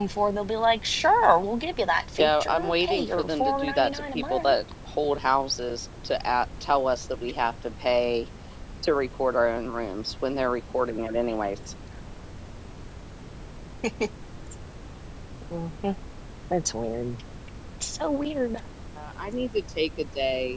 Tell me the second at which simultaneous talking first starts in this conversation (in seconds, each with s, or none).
2.2 s